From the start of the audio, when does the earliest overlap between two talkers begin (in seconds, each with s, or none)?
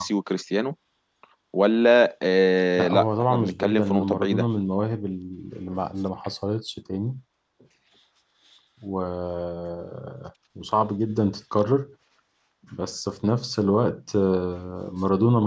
2.8 s